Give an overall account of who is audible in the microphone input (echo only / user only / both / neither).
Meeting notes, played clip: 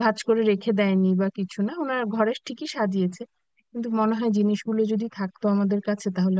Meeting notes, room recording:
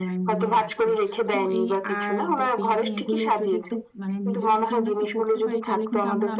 both